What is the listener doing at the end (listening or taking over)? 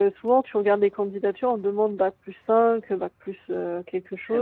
taking over